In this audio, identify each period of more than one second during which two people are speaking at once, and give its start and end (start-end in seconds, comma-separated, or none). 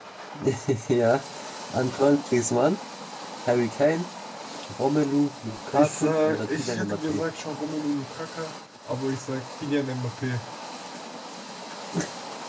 5.7-7.2